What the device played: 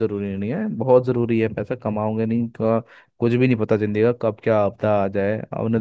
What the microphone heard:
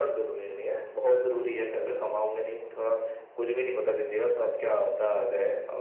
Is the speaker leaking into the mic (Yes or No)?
Yes